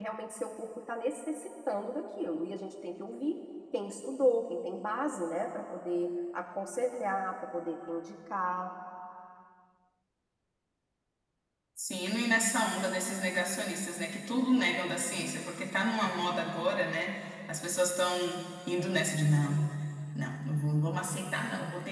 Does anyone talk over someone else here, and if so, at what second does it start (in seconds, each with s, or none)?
none